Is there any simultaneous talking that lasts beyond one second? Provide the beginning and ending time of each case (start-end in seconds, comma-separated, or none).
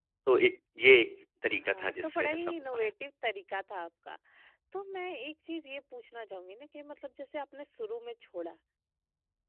1.6-2.9